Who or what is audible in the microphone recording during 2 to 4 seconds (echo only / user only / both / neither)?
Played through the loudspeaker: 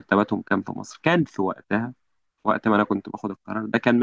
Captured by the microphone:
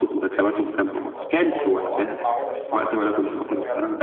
both